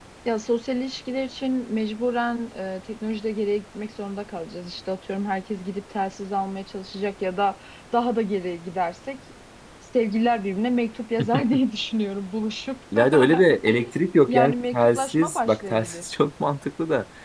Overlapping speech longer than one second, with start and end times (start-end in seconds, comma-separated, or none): 14.3-16.1